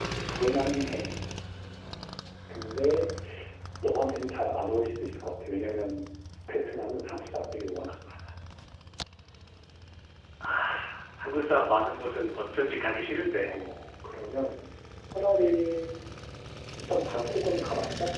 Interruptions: none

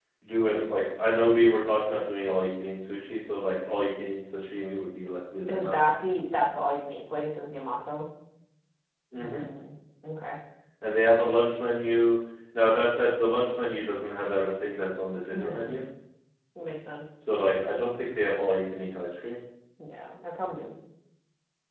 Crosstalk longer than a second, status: none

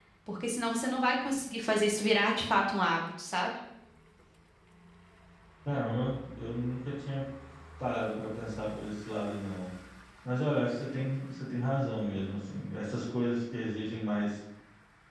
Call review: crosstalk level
none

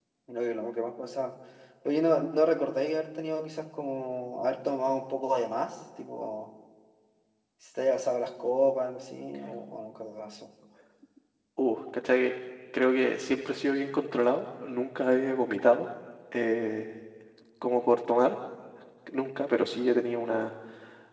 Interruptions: none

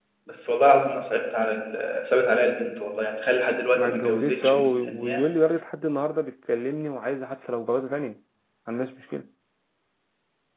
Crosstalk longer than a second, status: present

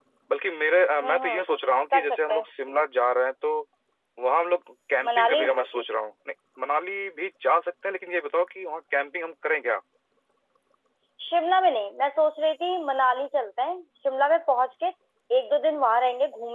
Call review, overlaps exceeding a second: none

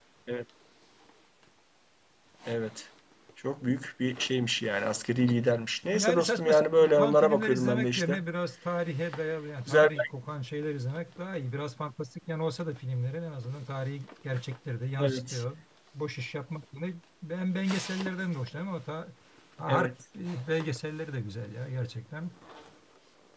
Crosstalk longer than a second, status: present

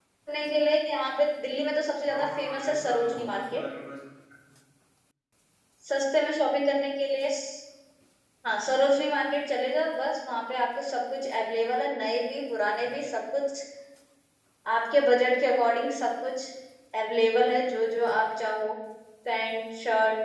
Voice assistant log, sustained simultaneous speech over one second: present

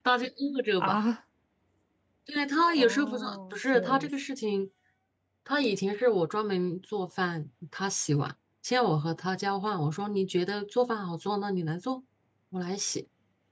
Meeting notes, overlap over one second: present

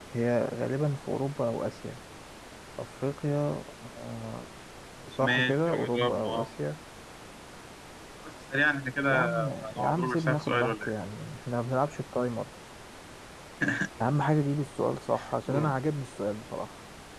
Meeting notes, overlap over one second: present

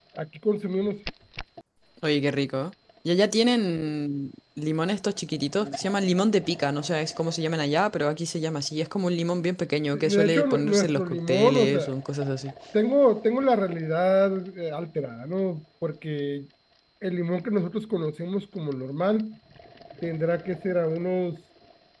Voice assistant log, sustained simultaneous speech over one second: present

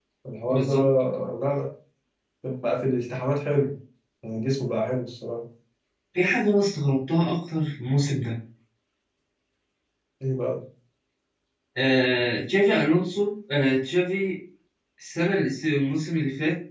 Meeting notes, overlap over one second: none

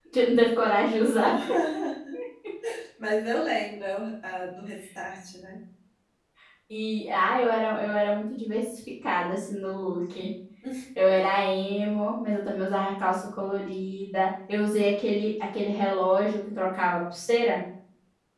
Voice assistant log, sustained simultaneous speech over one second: none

